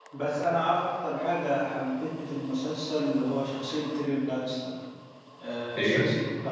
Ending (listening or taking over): listening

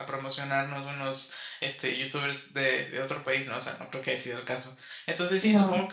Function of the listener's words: listening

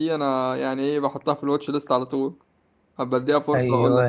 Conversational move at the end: taking over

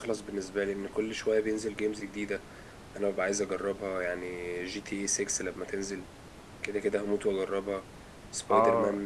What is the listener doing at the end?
taking over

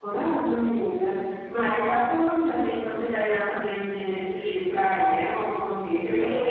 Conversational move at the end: taking over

